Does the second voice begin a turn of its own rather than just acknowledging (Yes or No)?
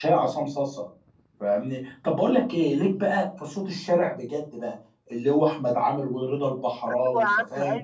Yes